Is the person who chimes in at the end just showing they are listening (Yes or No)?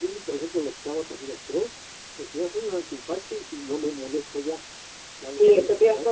No